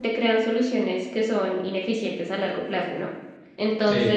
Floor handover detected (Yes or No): No